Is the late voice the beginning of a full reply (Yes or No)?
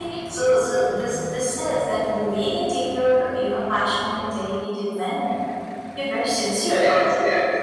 Yes